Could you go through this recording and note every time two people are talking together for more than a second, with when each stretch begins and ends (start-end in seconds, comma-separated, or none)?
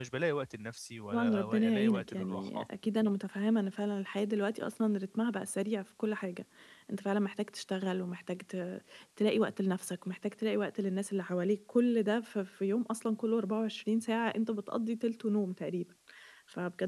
1.1-2.7